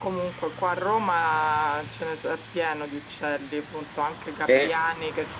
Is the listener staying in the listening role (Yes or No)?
Yes